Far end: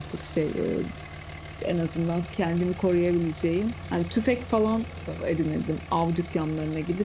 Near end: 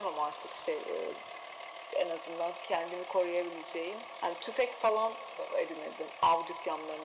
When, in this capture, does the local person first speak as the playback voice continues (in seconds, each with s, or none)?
none